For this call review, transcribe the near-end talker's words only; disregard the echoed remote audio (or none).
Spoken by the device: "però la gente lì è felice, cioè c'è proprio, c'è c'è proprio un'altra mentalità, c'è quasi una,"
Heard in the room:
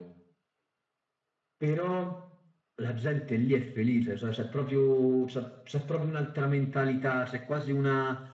none